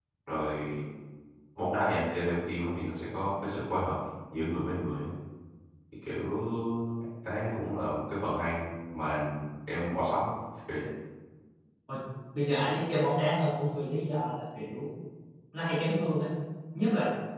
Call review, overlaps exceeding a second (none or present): none